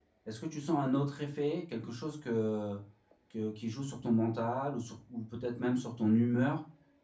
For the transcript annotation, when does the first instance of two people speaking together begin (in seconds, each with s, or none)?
none